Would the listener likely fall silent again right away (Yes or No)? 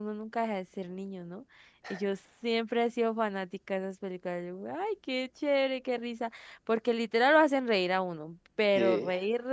Yes